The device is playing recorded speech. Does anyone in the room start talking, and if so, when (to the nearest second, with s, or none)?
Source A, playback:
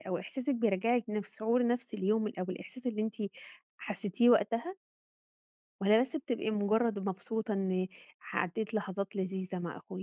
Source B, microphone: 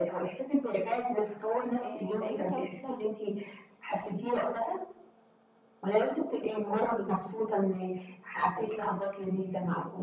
2 s